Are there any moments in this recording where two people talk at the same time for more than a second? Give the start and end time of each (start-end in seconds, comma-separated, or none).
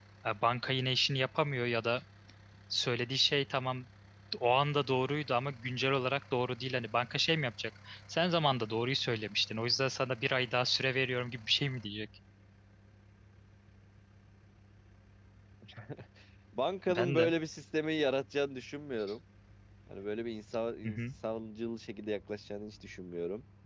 none